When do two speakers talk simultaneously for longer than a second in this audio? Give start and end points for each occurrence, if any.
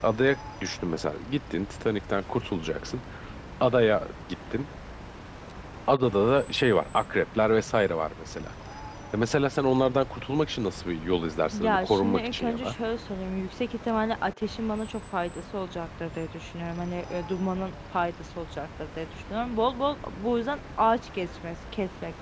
11.5-12.8

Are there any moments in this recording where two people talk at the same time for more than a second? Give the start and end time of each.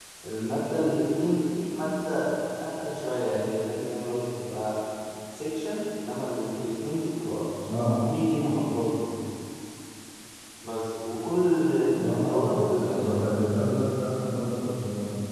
12.0-13.3

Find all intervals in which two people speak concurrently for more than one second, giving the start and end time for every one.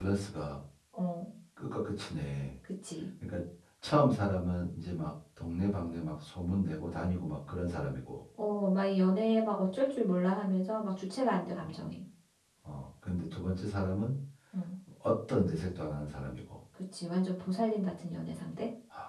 none

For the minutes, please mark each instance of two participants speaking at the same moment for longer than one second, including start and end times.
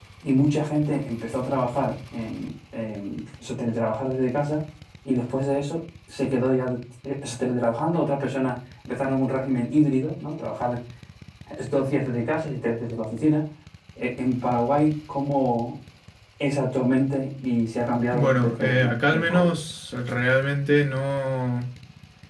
18.1-19.5

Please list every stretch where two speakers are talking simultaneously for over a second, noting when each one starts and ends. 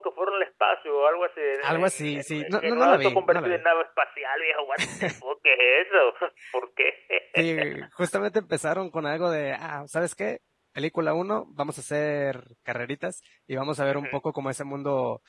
1.6-3.6

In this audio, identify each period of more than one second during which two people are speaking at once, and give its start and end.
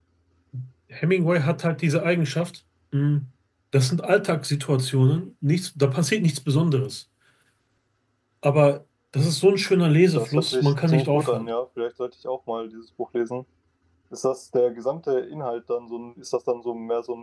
10.2-11.5

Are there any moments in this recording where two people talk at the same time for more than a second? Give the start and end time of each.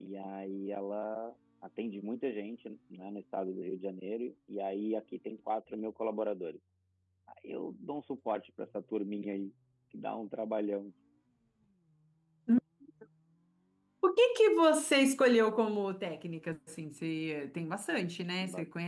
none

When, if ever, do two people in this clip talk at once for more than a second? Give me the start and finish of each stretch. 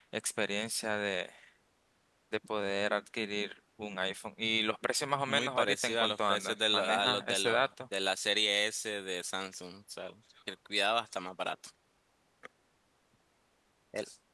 5.3-7.7

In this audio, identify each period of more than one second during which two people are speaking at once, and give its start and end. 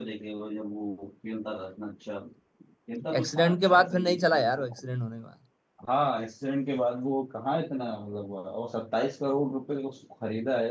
3.2-4.8

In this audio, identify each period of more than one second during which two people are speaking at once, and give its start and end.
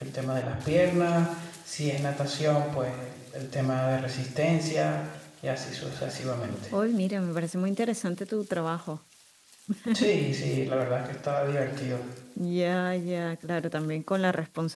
none

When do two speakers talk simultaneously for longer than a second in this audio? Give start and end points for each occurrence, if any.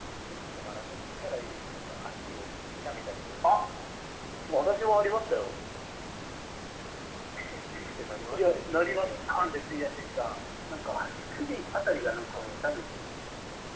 8.3-9.5

